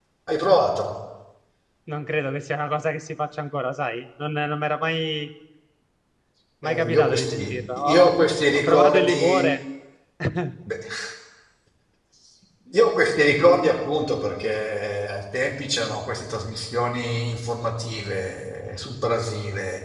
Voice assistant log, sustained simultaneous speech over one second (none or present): present